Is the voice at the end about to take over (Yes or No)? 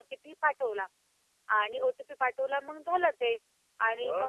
No